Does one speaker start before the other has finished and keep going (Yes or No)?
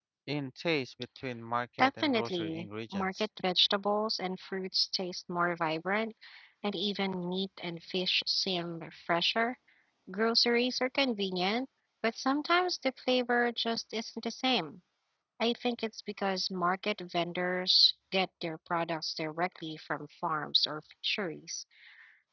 Yes